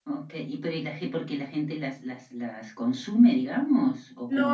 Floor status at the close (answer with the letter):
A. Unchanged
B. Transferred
B